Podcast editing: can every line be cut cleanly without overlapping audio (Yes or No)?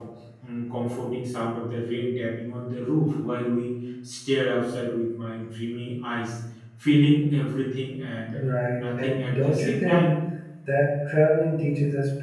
No